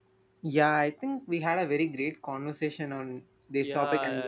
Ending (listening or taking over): taking over